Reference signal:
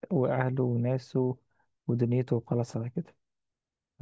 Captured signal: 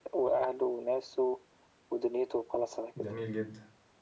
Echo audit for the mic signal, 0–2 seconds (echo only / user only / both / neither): echo only